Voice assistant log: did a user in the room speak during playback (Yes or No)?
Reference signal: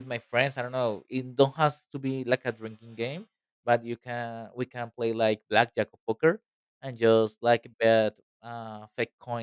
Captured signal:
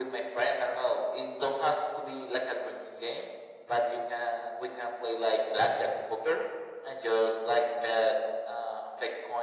No